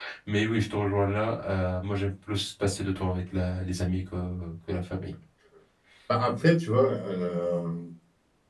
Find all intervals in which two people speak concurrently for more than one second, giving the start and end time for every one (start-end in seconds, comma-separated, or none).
none